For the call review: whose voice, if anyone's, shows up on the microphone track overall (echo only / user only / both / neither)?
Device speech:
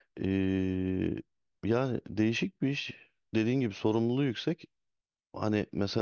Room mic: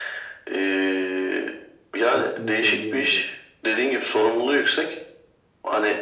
both